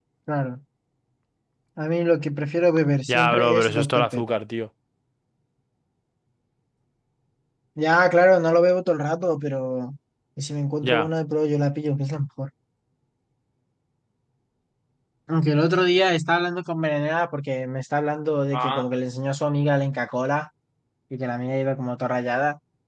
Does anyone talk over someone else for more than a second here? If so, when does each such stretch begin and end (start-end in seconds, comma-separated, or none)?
3.1-4.4